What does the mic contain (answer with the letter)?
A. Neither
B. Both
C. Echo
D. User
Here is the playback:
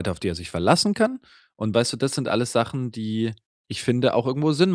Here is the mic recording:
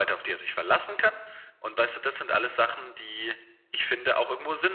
C